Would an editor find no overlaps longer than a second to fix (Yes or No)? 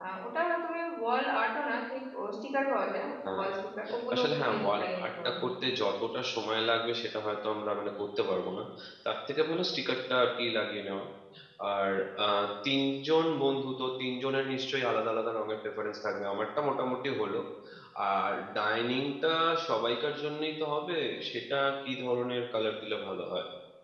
No